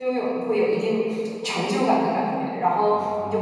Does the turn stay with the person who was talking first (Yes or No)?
Yes